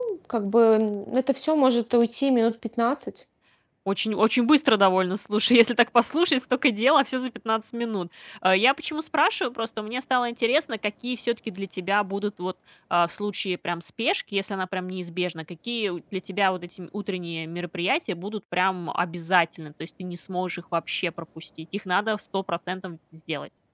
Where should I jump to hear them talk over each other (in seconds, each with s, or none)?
none